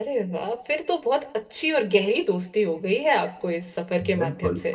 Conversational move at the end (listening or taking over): taking over